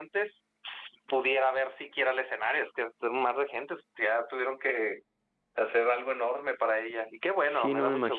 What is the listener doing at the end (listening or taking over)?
taking over